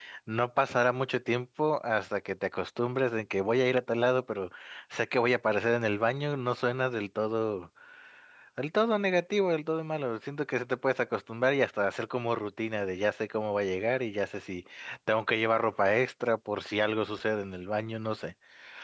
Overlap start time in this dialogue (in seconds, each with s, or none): none